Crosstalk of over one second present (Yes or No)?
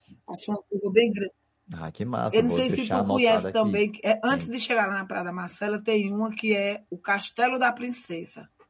Yes